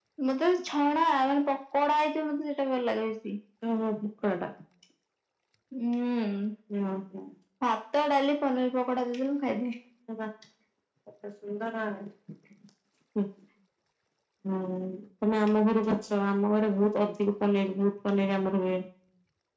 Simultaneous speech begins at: none

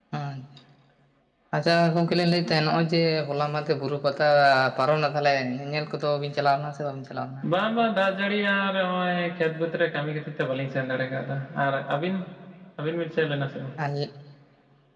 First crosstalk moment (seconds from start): none

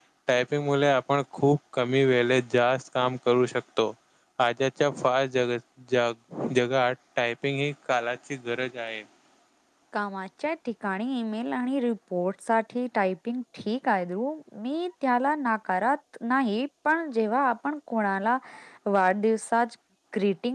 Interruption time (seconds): none

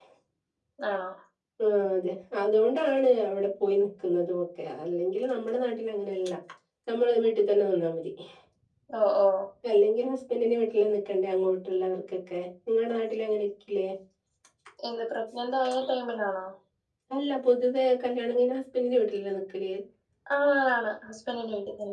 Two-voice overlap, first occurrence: none

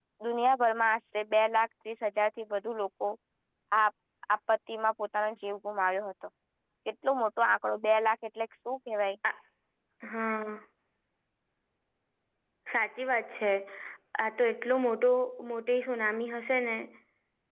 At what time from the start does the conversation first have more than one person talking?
none

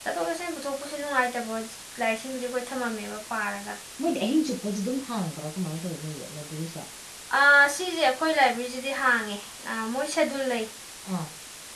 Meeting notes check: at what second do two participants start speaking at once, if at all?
none

